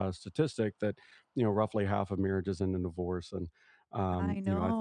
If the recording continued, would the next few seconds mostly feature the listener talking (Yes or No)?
No